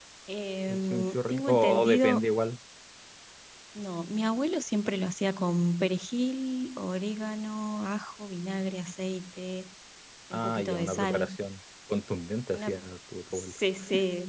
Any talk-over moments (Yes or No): Yes